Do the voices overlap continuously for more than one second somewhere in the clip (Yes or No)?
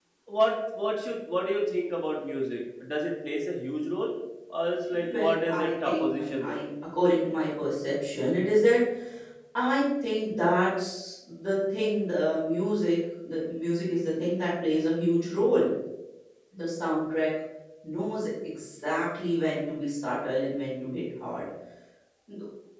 Yes